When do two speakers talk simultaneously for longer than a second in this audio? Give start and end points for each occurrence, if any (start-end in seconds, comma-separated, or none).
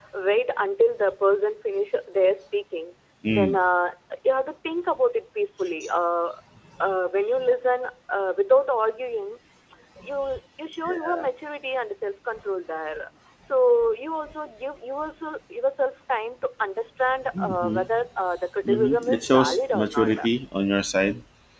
18.7-20.3